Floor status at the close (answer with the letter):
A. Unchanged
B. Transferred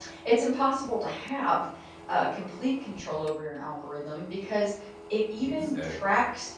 A